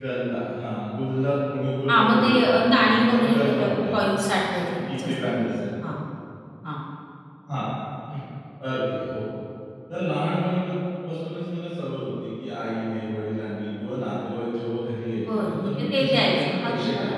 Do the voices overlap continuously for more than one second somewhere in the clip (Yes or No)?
Yes